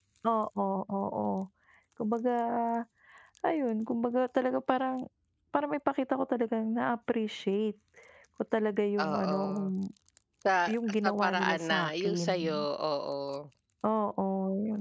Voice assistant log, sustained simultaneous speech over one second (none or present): present